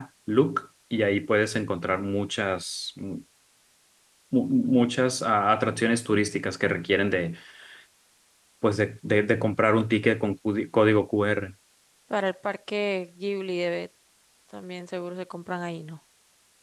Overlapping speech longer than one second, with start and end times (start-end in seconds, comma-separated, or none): none